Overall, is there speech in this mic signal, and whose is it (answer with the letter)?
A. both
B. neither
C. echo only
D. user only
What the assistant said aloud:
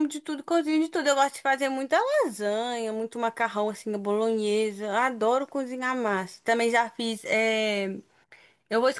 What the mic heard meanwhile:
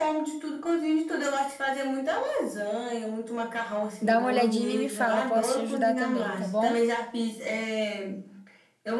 A